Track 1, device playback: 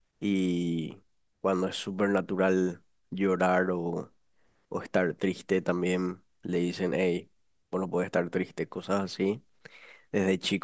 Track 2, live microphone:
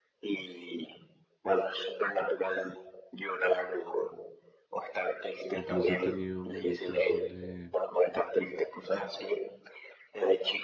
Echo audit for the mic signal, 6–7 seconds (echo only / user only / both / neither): both